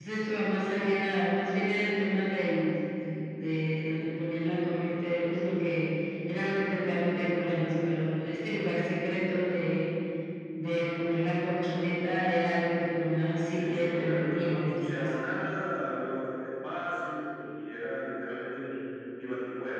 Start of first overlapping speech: 14 s

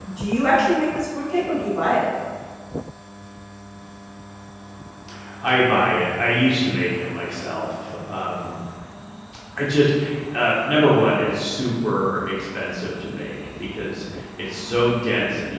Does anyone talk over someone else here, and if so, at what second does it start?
none

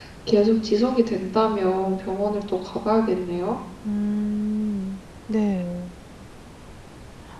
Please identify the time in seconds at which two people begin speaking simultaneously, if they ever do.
none

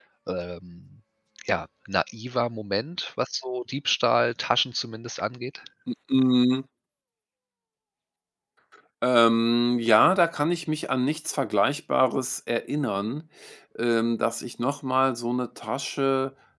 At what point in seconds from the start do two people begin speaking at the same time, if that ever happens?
none

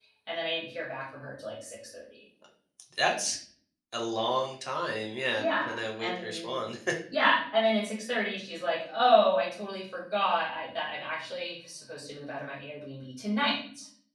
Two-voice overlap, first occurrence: 5 s

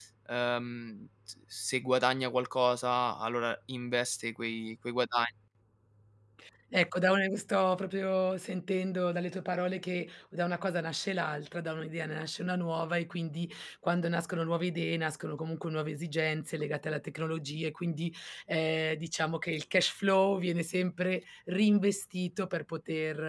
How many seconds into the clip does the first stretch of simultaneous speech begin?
none

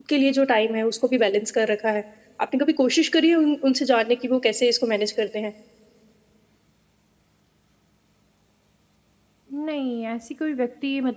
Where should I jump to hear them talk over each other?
none

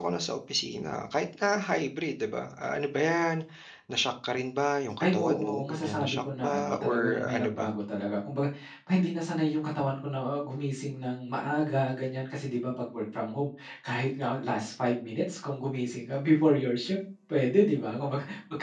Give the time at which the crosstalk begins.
5 s

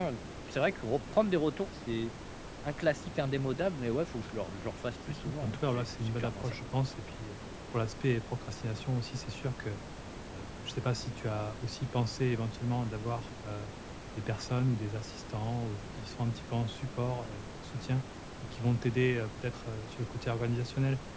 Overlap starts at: 5 s

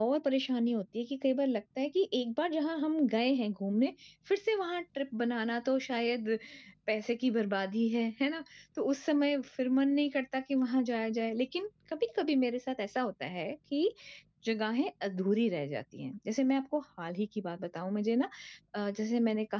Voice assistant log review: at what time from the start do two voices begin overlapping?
none

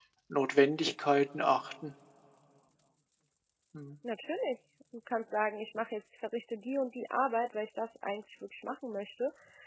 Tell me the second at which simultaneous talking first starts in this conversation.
none

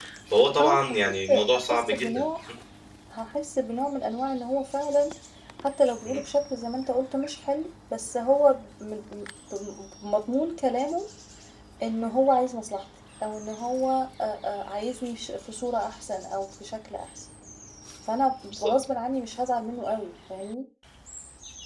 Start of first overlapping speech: 1 s

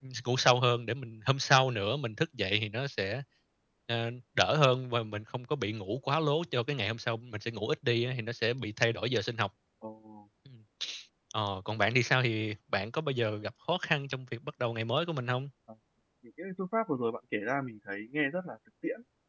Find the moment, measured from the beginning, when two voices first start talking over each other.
none

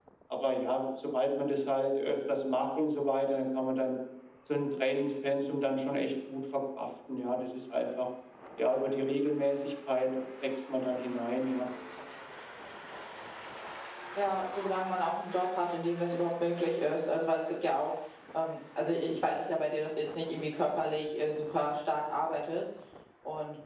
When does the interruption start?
none

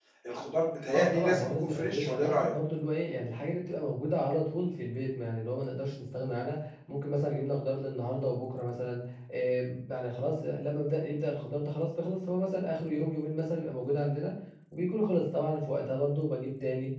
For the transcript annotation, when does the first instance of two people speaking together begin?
1 s

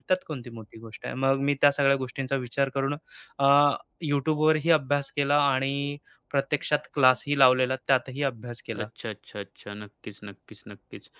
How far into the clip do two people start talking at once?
none

